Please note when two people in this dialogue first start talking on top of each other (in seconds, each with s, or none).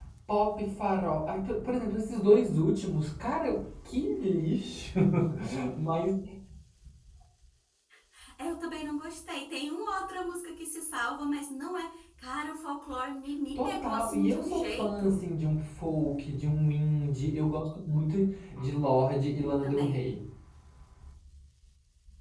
13.5 s